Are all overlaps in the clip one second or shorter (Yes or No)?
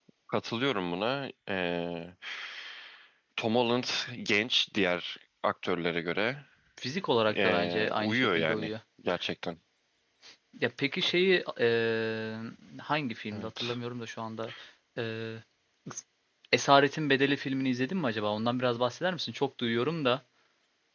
No